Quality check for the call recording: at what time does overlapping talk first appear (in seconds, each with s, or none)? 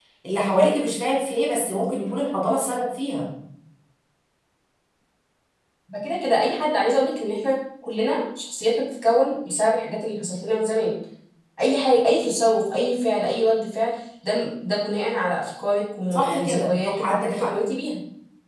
16.1 s